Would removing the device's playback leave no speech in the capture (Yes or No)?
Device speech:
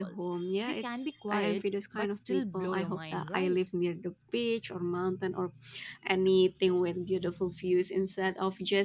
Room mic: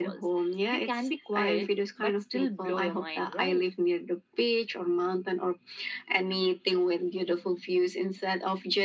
Yes